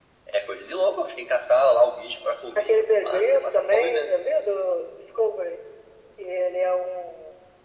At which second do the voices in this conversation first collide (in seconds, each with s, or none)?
2.5 s